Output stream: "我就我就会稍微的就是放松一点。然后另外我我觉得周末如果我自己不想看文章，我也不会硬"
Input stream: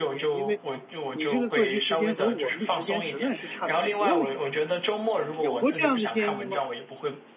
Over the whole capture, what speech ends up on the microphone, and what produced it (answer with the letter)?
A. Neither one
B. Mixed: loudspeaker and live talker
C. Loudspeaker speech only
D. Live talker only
B